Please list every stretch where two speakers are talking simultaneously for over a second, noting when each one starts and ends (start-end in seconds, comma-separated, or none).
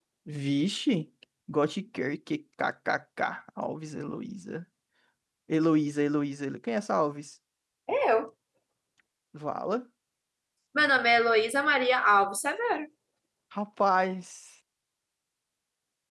none